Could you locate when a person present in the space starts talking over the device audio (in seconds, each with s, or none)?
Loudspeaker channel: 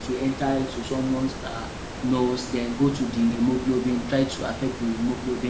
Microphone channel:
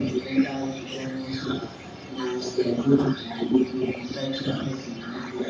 none